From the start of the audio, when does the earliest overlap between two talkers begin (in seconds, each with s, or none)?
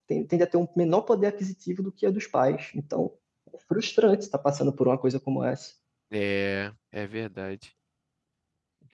none